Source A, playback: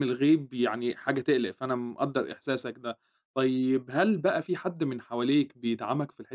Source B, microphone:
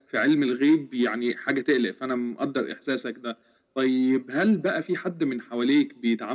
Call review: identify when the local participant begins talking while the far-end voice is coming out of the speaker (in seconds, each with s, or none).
none